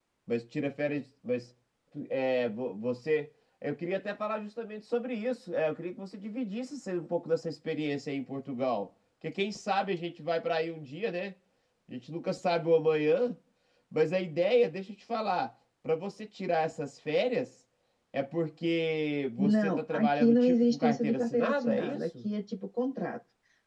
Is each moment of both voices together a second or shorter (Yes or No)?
No